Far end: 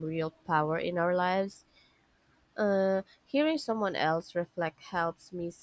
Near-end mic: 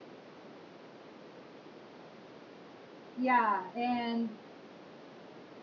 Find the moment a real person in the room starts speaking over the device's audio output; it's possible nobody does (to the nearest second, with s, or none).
3 s